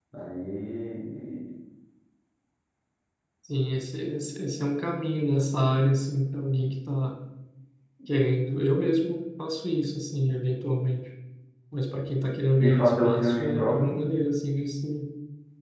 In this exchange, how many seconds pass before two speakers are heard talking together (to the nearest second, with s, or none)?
13 s